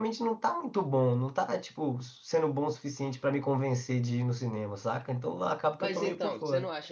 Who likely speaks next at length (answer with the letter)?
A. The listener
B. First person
A